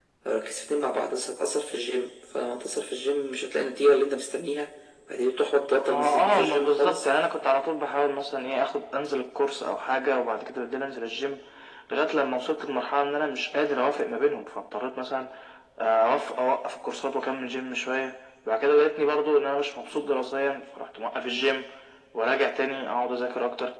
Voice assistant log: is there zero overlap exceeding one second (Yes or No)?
No